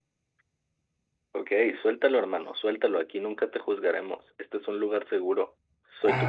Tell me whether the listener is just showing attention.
No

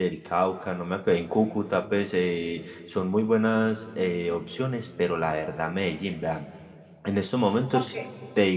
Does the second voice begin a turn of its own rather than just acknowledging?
No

